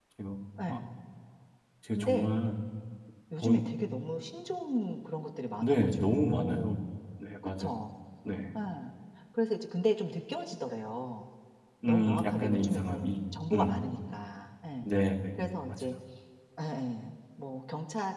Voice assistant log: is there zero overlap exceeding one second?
No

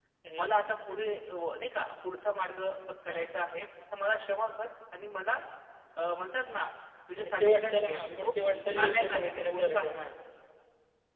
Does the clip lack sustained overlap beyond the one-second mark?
No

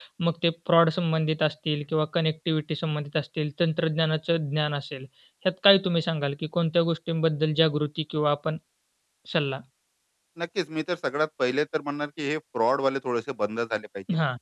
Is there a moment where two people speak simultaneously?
No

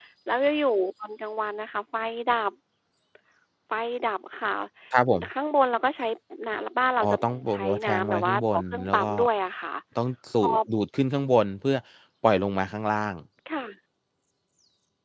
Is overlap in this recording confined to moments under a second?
No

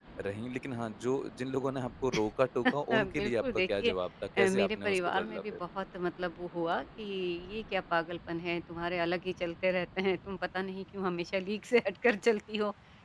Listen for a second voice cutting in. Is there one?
Yes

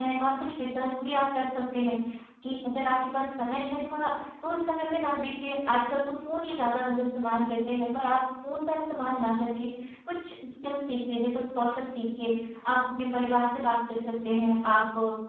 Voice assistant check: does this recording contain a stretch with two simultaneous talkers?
No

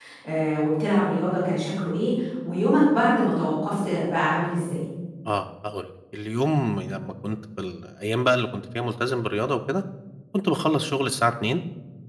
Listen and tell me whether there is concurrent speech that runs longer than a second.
No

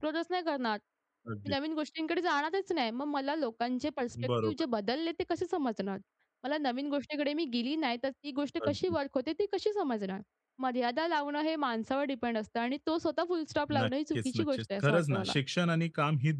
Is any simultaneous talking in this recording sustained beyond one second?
Yes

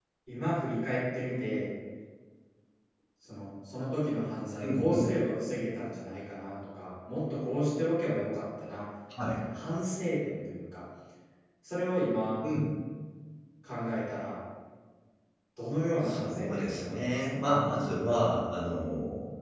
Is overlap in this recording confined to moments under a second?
No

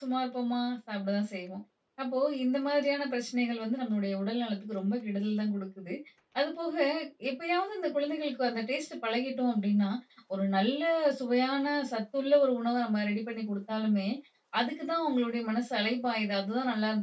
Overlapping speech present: No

